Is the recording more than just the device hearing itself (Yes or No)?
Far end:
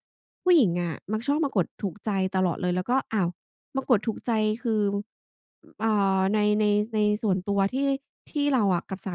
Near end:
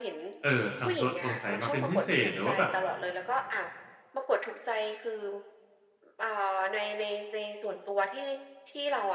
Yes